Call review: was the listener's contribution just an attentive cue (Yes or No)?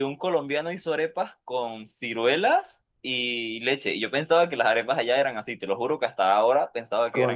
No